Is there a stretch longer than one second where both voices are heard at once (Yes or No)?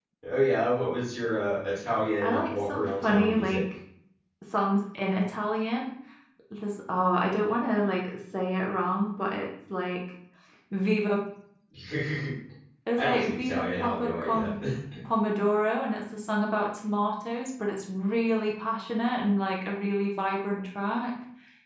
Yes